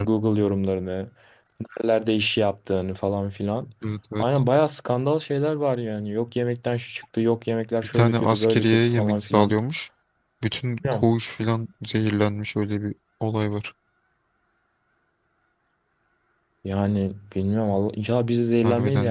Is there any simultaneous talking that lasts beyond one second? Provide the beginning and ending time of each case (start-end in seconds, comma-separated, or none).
7.8-9.6